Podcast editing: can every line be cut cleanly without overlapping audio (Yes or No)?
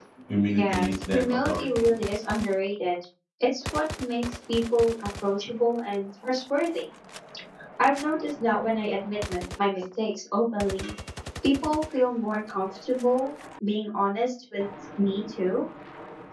No